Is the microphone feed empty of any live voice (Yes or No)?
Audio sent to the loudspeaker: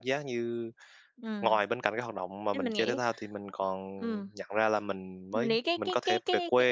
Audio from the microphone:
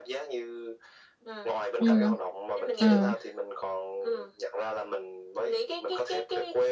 No